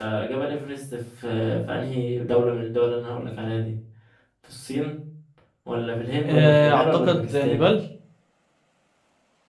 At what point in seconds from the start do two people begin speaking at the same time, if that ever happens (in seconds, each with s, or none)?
6.2 s